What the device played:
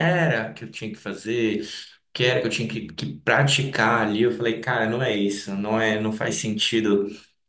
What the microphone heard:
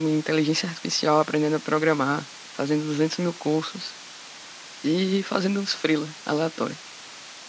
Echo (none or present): none